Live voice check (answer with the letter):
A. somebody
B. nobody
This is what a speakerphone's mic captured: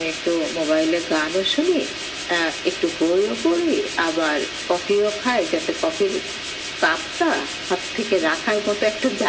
B